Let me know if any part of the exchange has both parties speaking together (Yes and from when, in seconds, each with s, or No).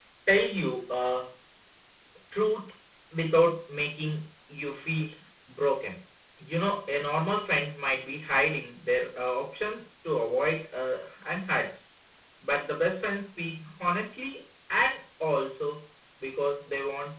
No